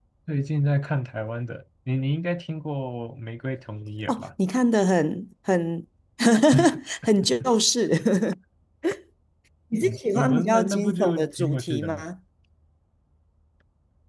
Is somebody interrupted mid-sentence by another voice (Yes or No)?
Yes